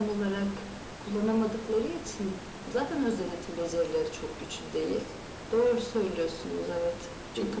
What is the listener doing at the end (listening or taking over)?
taking over